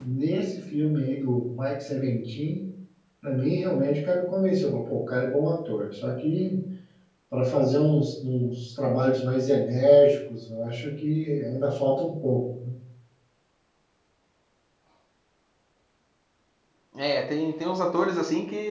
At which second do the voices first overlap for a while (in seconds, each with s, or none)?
none